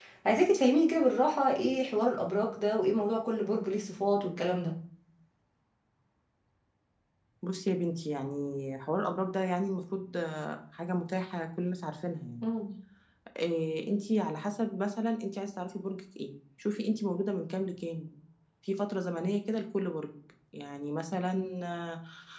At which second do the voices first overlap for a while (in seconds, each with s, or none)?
none